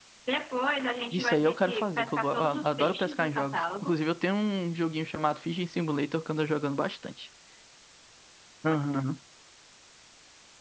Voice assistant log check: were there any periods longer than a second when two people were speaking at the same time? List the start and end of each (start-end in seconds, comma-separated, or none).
1.1-4.0